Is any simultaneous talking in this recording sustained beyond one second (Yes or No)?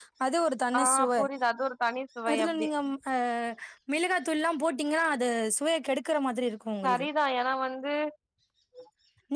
No